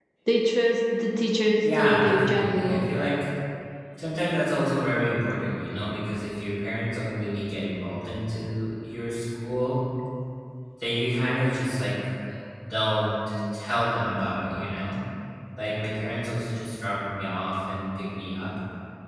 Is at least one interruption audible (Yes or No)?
Yes